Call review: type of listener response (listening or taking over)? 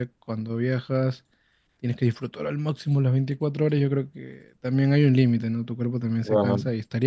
listening